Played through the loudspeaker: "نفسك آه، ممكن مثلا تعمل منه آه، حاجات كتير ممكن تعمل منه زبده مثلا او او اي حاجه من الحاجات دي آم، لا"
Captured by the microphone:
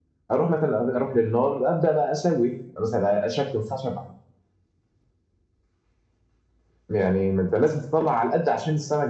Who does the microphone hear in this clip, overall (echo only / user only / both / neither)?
user only